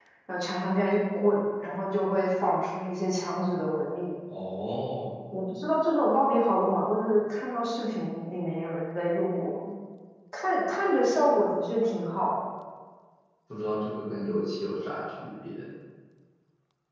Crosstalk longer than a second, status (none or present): none